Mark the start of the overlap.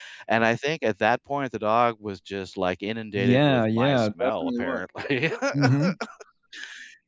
3 s

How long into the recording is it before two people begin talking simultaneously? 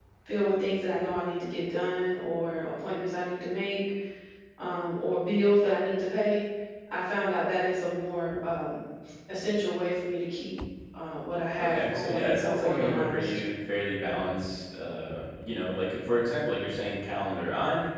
12 s

